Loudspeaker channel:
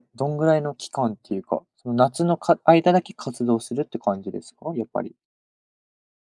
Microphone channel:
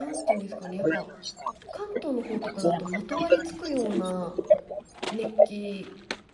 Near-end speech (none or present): present